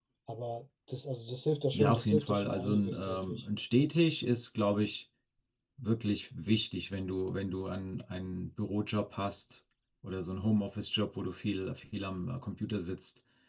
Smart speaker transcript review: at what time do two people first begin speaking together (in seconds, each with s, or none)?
1.7 s